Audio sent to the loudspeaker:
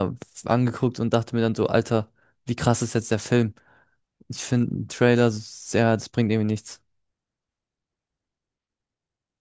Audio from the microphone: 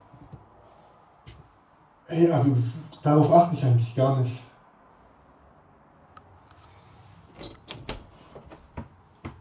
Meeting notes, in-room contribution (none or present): present